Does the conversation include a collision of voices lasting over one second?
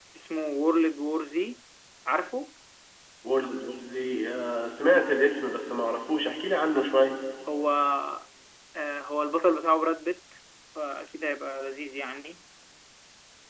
No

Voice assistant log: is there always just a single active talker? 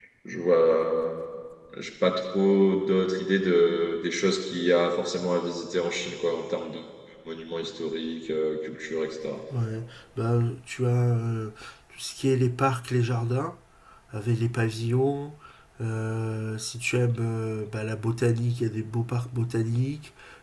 Yes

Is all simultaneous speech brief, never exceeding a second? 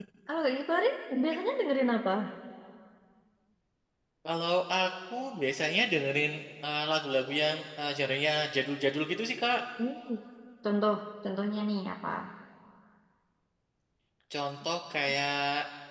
Yes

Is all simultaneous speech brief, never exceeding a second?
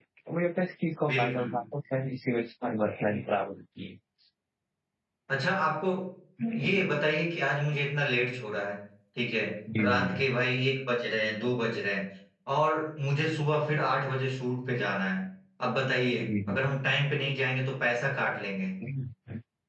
Yes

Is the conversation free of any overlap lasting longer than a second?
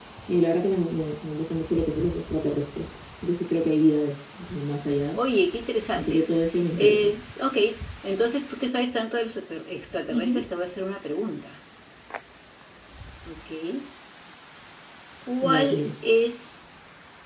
Yes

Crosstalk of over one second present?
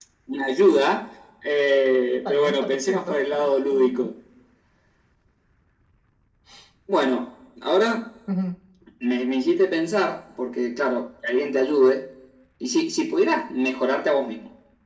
Yes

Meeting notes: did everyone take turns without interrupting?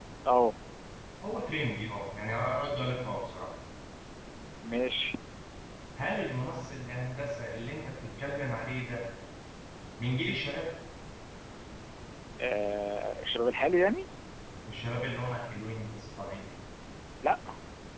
Yes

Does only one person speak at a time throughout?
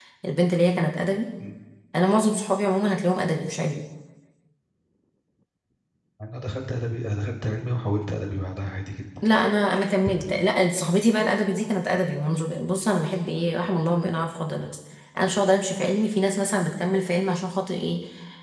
Yes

